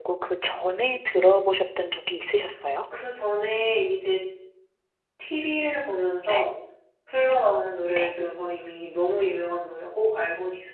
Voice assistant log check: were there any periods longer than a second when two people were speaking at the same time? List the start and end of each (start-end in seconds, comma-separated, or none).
none